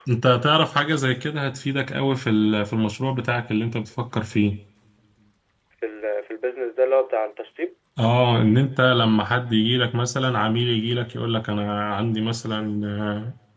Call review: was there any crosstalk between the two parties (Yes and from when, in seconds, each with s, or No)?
No